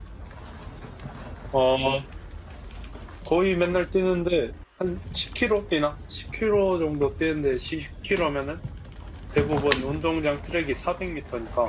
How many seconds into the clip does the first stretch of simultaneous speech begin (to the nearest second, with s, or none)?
none